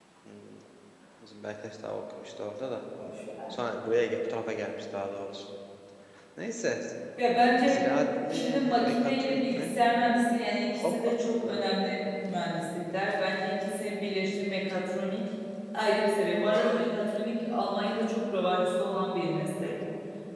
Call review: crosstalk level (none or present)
present